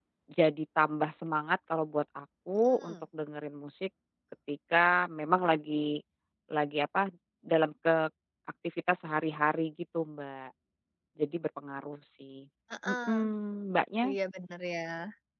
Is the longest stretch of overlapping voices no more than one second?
Yes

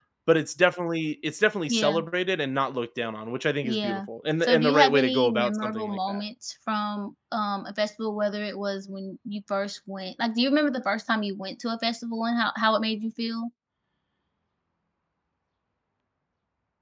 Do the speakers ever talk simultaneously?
Yes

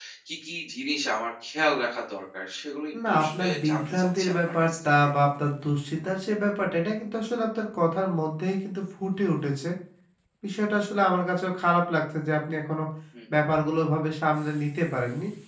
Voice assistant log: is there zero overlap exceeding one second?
No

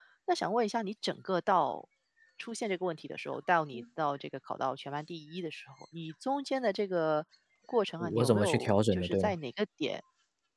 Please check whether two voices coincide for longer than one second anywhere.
Yes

